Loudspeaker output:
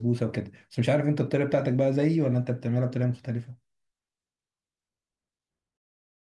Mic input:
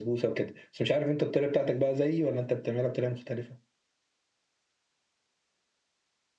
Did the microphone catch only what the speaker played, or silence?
Yes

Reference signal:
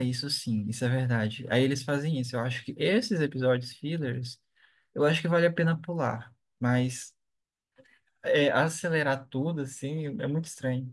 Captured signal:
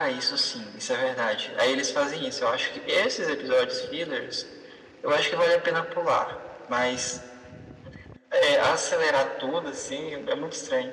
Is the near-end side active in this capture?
No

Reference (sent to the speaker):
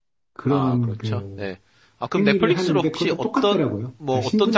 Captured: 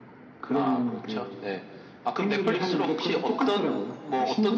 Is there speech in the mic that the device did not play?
No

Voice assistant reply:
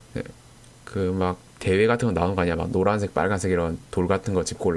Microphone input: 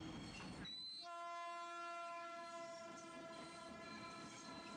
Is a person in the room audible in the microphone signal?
No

